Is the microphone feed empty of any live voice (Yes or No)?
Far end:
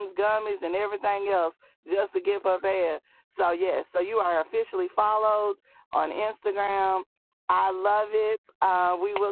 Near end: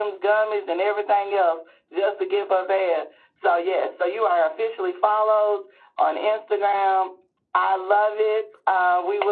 Yes